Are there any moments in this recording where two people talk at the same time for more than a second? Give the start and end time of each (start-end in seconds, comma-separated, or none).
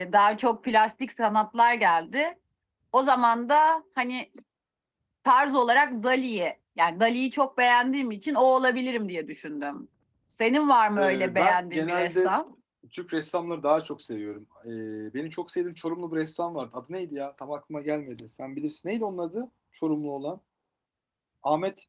11.0-12.3